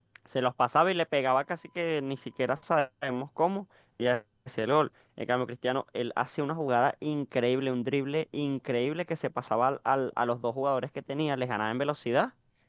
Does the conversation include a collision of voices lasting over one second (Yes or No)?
No